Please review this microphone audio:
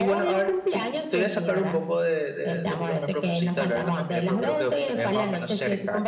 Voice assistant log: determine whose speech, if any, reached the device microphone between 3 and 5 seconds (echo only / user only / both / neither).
both